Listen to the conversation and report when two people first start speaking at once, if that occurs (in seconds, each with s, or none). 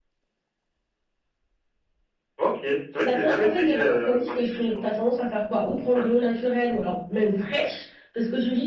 3.0 s